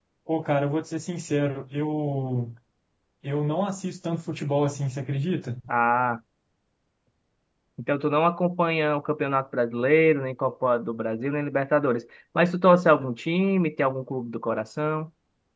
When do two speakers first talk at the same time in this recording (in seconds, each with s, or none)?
none